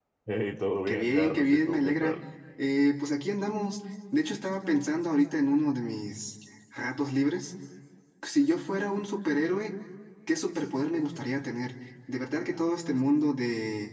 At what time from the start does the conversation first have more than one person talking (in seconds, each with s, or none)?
0.9 s